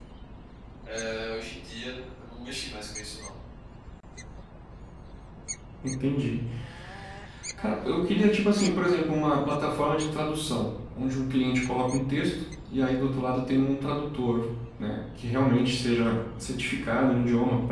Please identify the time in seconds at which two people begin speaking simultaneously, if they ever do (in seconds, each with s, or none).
none